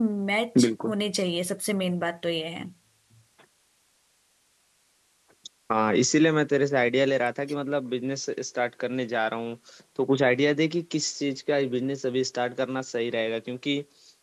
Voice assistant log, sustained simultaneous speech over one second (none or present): none